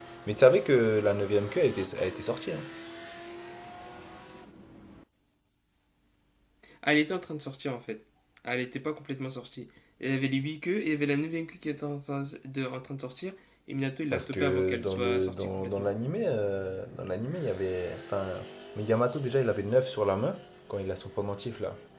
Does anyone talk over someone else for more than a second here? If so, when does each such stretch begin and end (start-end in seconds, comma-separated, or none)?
14.1-15.9